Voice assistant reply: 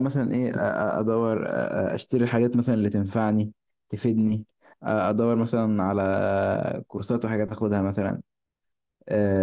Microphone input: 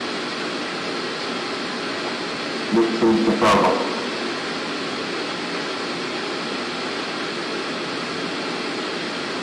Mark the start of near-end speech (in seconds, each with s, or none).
2.7 s